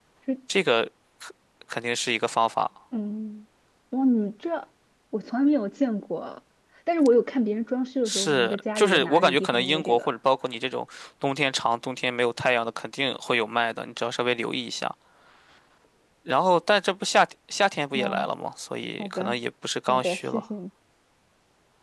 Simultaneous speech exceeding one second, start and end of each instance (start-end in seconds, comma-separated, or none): 8.1-10.1